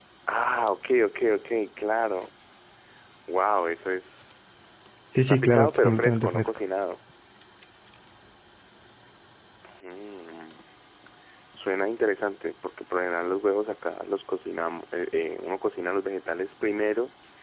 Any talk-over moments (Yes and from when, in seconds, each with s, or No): Yes, from 5.2 s